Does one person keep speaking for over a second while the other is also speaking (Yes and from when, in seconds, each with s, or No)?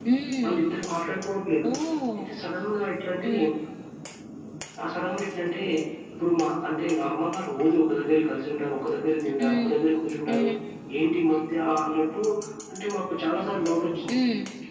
No